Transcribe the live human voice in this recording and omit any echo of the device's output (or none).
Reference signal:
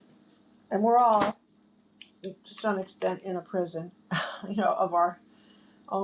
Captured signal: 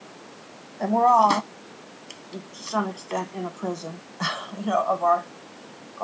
none